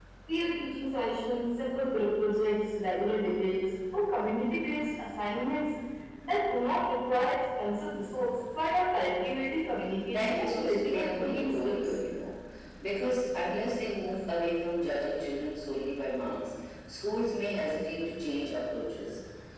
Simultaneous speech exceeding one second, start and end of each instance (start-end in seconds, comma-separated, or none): 10.1-11.9